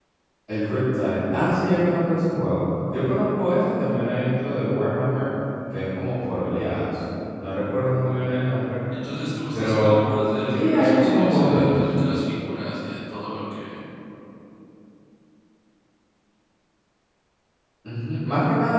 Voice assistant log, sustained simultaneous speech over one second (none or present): present